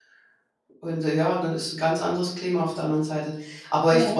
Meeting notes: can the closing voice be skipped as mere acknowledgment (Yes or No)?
Yes